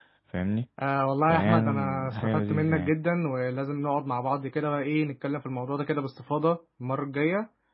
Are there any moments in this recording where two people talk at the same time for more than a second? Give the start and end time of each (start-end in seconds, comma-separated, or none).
1.3-2.9